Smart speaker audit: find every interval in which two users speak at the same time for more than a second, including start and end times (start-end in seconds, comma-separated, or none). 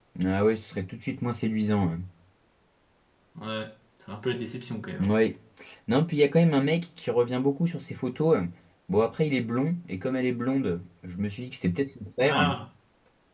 none